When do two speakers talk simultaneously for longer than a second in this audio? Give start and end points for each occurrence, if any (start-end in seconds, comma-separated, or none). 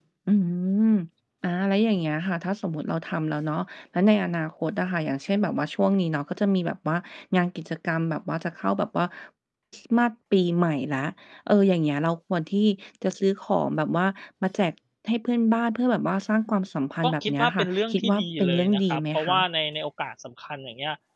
17.0-19.4